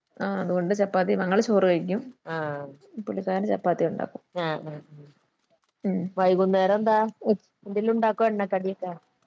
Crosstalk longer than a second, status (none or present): none